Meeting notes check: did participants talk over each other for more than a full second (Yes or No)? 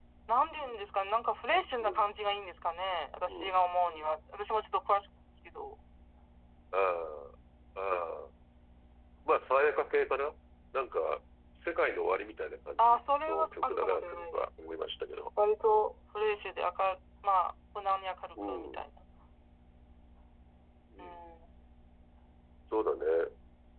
Yes